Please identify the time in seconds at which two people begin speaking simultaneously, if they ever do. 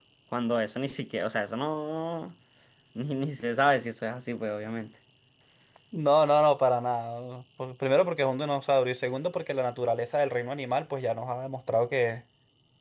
none

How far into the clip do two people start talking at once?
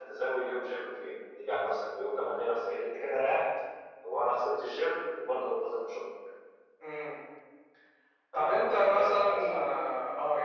8.3 s

